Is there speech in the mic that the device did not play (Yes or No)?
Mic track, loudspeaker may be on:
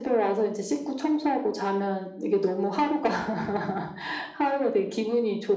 No